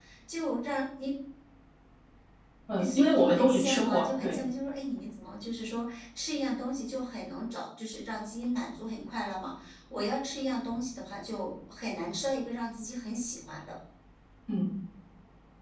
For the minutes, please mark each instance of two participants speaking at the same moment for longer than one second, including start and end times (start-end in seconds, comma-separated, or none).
2.8-4.4